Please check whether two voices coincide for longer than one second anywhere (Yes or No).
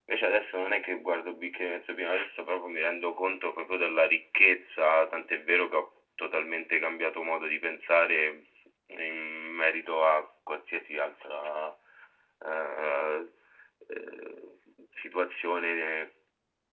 No